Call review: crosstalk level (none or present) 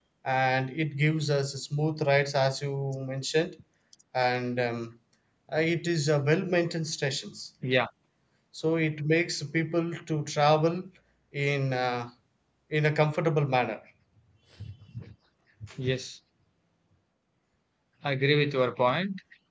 none